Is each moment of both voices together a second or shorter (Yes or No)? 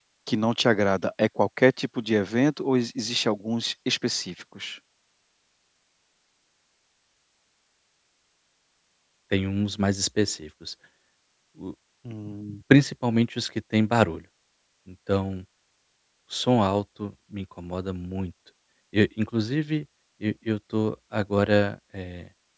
Yes